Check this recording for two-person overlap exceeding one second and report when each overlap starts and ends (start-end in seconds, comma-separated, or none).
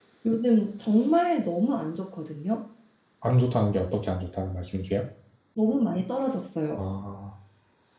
none